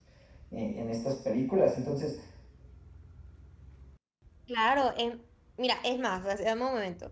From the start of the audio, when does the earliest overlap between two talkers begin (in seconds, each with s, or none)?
none